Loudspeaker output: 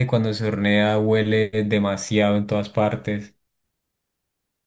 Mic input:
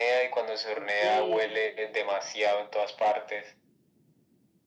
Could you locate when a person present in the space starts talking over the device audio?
0.7 s

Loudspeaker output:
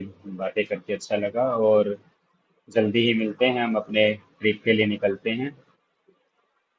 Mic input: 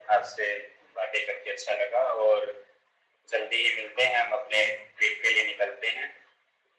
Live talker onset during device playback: none

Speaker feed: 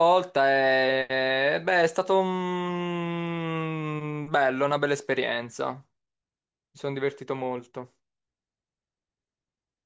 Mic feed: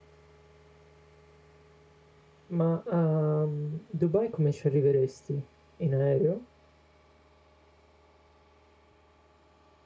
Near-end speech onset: 2.5 s

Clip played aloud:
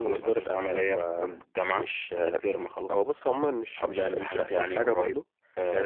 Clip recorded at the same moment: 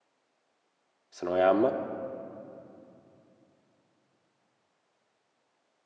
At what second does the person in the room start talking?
1.1 s

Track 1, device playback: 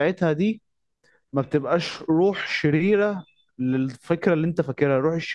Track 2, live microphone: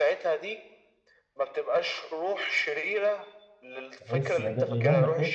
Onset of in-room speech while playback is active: 4.0 s

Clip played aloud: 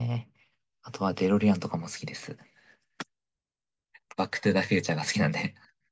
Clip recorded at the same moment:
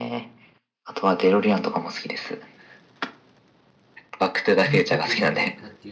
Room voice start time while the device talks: 4.6 s

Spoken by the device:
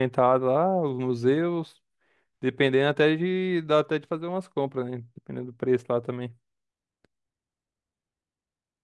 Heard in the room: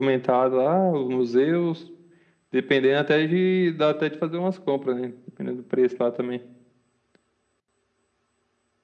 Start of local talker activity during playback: none

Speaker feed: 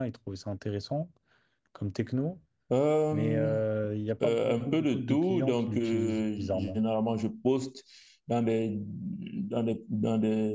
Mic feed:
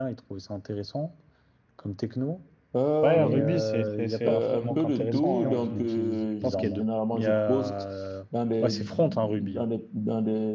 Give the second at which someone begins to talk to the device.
3.0 s

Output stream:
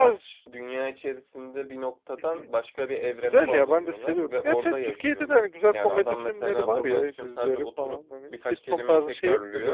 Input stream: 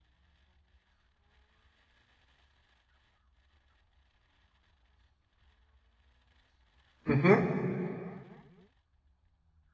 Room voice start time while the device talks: 7.0 s

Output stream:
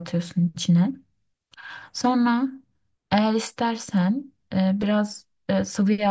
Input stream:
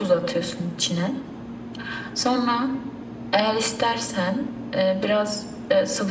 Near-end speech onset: none

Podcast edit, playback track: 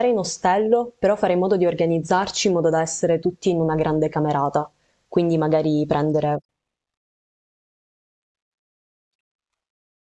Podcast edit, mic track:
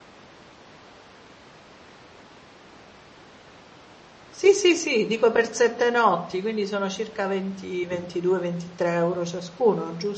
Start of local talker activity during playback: 4.3 s

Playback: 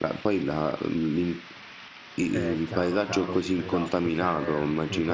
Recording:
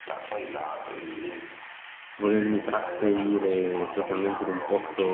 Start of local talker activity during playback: 2.1 s

